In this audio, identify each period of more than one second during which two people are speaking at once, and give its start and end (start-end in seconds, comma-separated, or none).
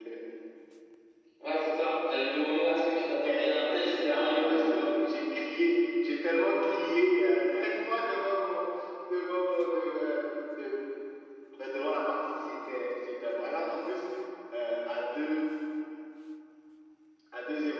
3.0-5.0